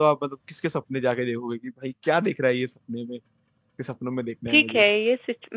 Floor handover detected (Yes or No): Yes